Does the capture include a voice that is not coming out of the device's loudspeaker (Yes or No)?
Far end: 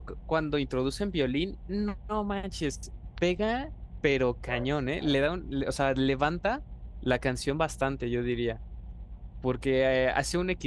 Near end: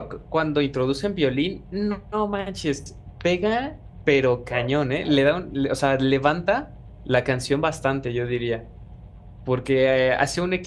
No